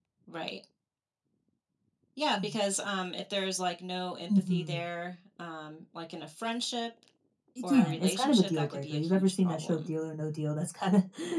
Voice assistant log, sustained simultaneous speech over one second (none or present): present